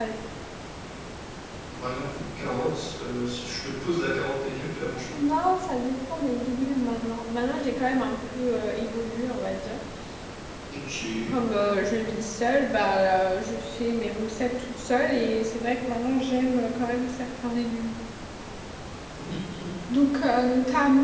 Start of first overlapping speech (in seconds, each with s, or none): none